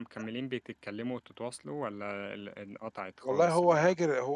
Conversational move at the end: taking over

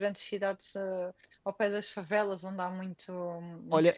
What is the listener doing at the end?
taking over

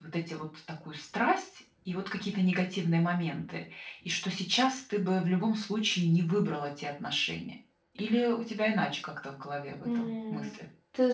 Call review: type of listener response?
taking over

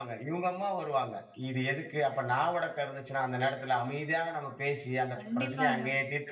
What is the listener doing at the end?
listening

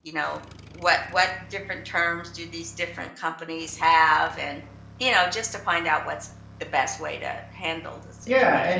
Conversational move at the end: taking over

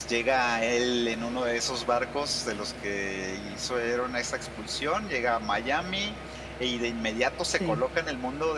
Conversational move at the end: listening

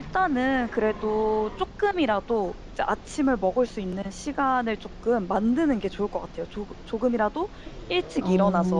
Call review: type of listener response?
listening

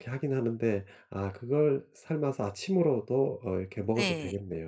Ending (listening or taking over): taking over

